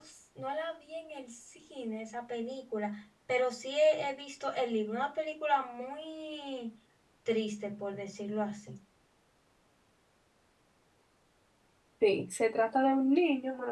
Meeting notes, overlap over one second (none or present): none